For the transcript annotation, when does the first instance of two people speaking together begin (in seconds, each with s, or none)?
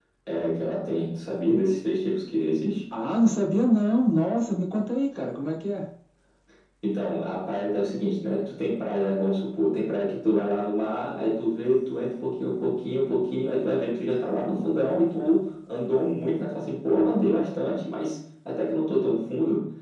none